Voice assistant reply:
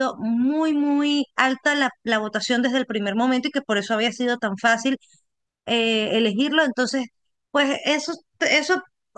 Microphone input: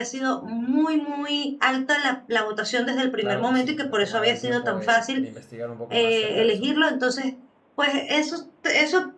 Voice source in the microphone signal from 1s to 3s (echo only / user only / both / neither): echo only